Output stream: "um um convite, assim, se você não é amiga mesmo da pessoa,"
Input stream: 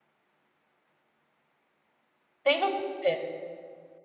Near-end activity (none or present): present